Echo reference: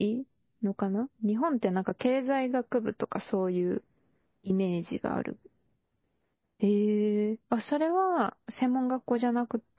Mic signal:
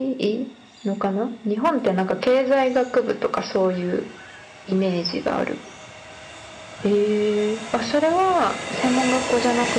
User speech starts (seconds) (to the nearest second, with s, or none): none